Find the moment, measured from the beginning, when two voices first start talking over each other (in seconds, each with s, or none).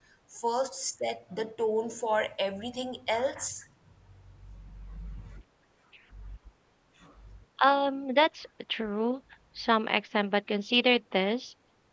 none